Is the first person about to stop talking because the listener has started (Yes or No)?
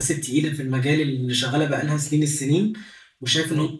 No